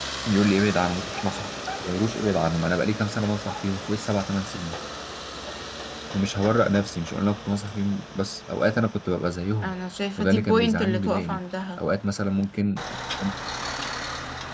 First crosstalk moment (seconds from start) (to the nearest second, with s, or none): 10 s